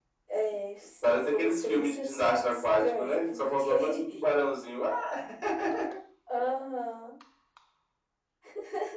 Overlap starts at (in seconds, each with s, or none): 1.0 s